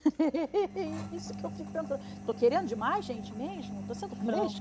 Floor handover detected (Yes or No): Yes